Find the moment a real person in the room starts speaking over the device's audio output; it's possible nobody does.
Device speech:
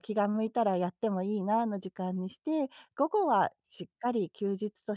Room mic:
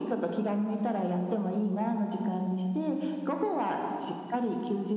none

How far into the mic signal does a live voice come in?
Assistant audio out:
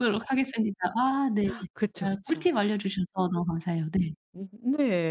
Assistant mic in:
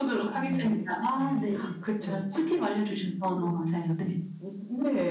0.3 s

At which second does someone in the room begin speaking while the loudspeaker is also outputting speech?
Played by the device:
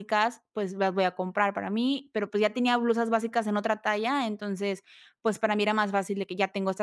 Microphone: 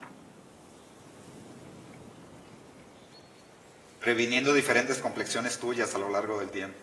4.0 s

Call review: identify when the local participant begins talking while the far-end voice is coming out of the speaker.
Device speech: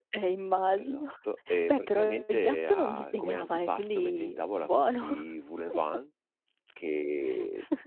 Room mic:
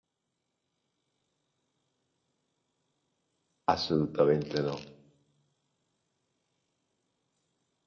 3.7 s

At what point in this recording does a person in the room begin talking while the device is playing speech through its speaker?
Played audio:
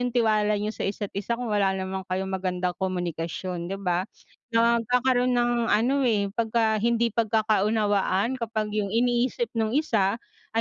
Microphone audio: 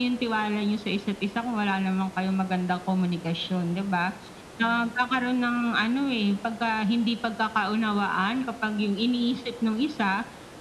none

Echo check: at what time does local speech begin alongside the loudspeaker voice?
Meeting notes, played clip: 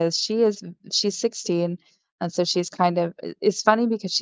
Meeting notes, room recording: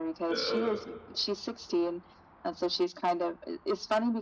0.3 s

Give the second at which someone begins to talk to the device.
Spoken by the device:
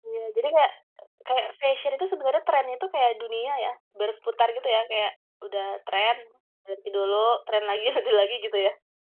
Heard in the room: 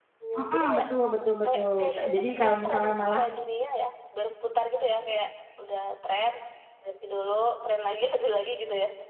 0.3 s

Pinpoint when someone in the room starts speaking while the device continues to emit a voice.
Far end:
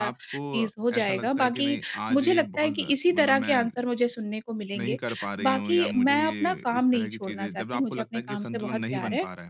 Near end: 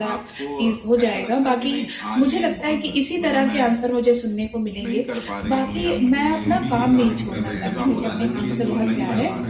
6.4 s

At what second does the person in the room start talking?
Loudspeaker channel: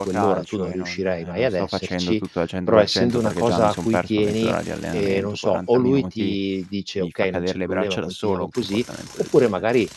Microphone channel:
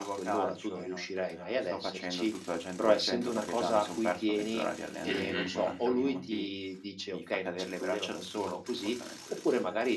5.1 s

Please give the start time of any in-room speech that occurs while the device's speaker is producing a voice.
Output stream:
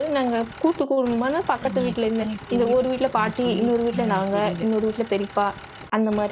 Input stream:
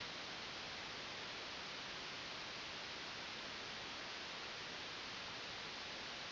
none

